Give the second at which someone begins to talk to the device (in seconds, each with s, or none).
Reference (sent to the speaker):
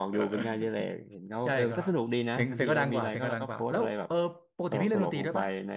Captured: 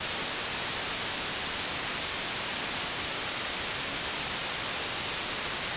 none